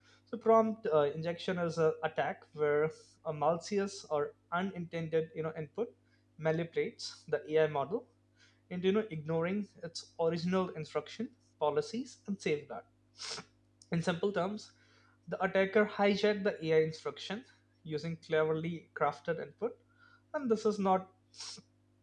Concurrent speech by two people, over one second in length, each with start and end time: none

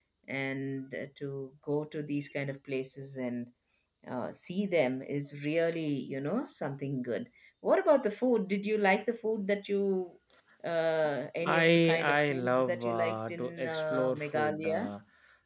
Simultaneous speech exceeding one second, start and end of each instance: 11.4-14.9

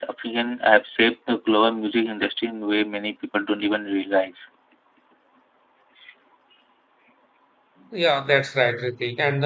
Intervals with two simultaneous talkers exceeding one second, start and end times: none

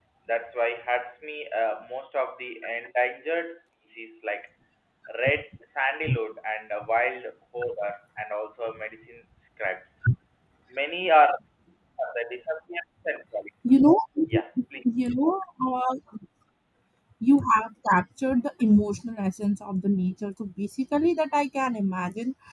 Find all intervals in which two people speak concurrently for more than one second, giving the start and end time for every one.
none

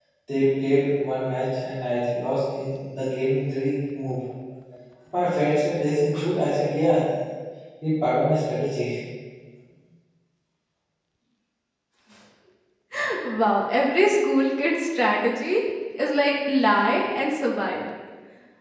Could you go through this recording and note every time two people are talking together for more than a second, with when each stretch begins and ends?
none

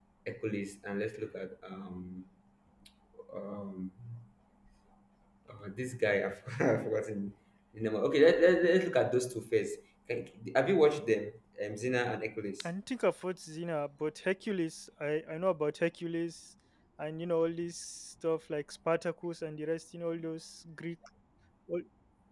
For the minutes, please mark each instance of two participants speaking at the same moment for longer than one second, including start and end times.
none

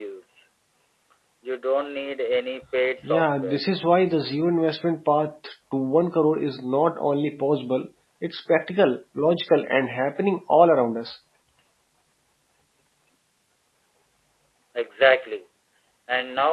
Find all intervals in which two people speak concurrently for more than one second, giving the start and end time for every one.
none

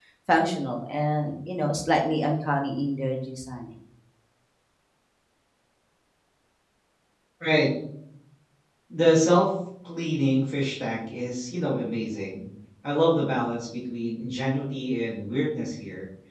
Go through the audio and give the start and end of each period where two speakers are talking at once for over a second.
none

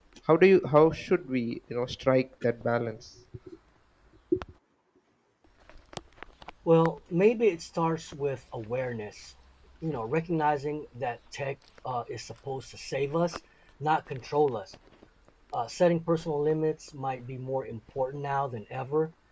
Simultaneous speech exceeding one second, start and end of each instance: none

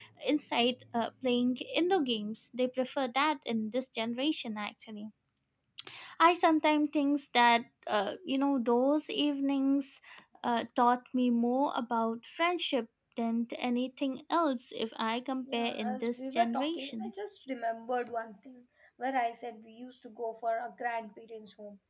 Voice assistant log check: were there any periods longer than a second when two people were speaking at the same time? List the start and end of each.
15.4-17.1

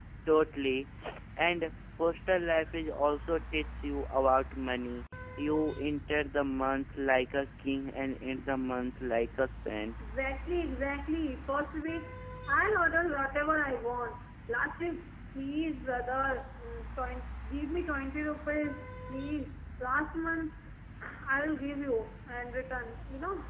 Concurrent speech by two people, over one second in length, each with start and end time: none

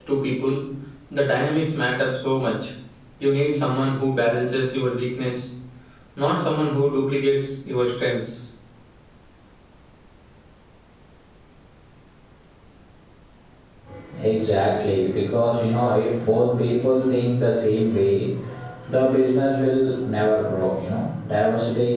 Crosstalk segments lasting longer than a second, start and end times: none

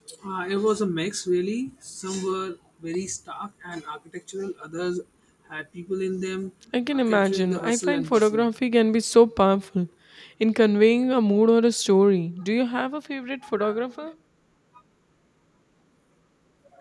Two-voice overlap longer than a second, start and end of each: 6.9-8.4

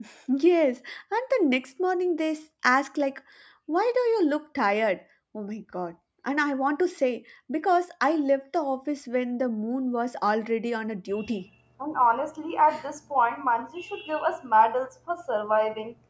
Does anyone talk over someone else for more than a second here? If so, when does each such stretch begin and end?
none

